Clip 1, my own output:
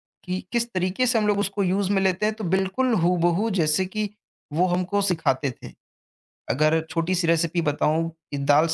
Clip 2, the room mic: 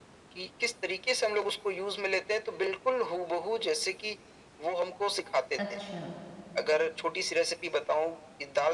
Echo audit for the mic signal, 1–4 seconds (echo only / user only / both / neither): echo only